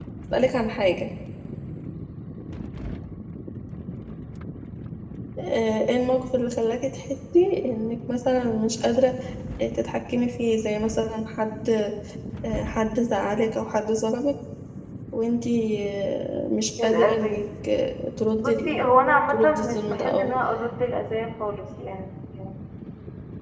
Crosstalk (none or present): present